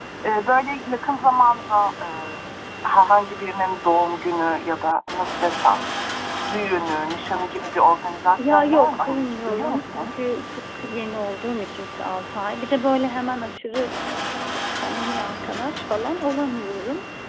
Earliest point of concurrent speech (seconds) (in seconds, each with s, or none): 8.4 s